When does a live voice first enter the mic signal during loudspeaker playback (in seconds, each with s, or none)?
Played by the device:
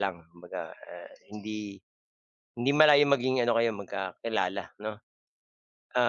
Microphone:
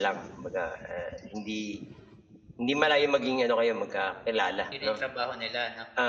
4.7 s